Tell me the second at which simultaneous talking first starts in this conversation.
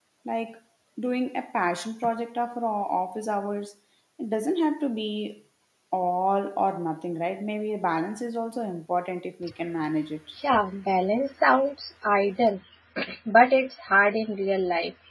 none

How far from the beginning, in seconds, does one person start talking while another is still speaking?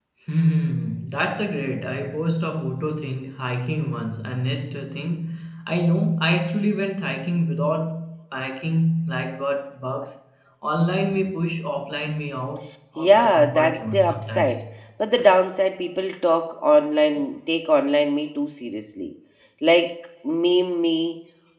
13.0 s

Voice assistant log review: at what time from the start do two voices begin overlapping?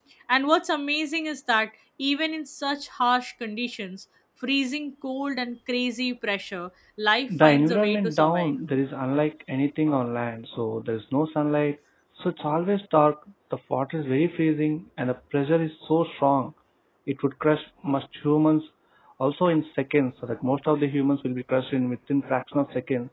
7.3 s

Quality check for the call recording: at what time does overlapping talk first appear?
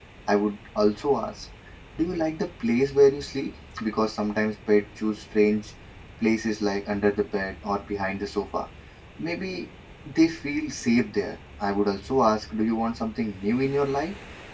none

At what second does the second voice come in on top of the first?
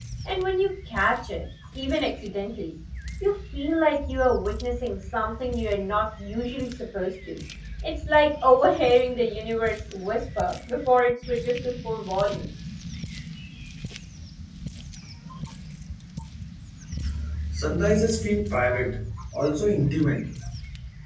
none

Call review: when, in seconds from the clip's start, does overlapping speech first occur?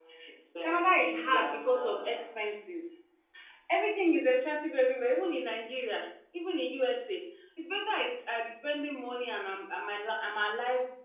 0.6 s

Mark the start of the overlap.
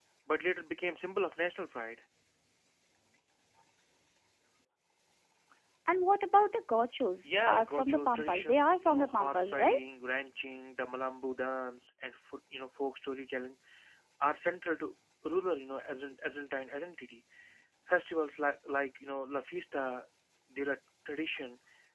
7.2 s

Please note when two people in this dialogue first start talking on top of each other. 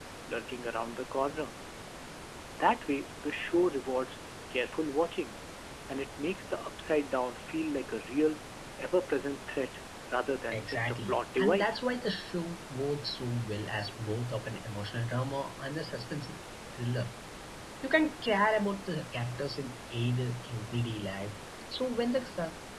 10.5 s

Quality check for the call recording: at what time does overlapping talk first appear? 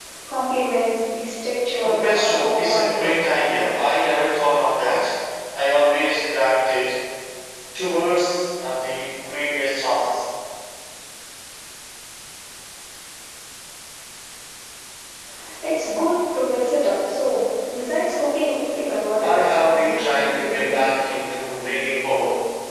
1.8 s

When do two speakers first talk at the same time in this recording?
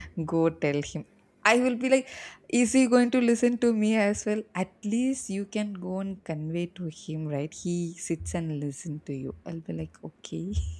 none

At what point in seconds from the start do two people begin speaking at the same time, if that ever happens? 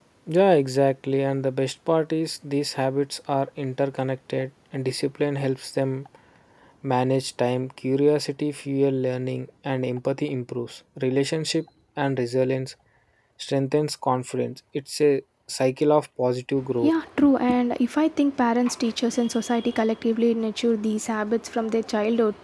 none

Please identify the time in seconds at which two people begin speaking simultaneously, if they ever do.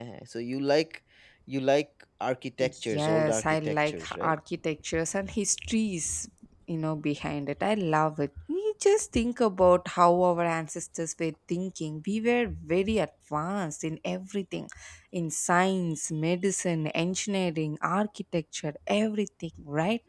2.9 s

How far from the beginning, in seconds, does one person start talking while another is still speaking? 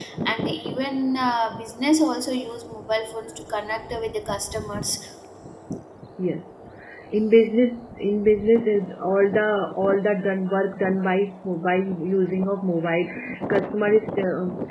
none

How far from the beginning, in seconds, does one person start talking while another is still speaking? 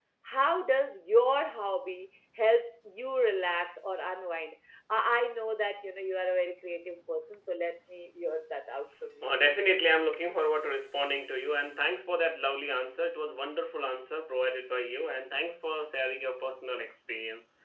none

